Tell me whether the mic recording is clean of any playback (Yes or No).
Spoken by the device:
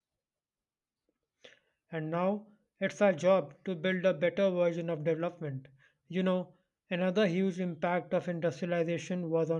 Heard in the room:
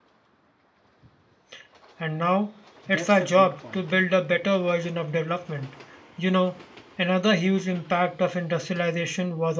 No